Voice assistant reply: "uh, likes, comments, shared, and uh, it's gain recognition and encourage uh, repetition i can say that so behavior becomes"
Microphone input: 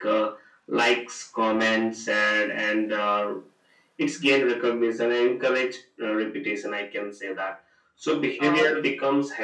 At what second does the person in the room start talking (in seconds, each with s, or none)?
8.4 s